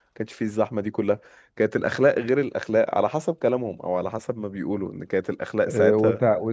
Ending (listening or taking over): taking over